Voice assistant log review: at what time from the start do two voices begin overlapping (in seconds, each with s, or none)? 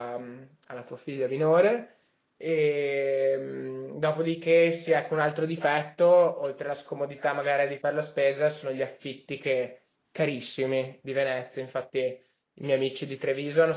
none